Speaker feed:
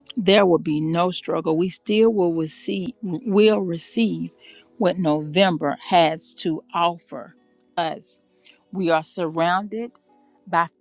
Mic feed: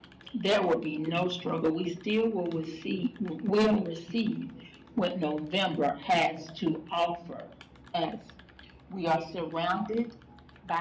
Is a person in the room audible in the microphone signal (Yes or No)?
No